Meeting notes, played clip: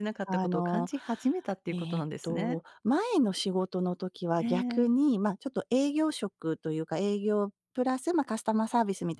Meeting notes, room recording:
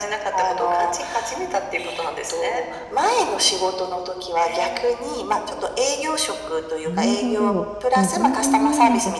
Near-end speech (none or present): present